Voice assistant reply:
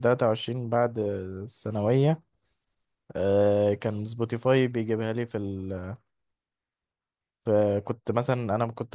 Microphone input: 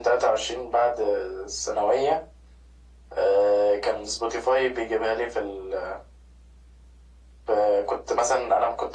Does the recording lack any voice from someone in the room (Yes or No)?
Yes